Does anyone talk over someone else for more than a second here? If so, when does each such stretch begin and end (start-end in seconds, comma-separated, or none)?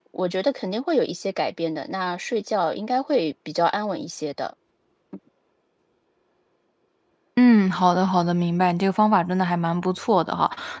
none